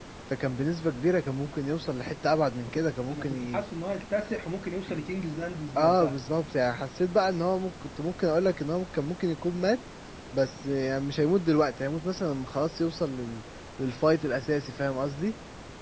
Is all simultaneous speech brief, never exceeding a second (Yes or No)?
Yes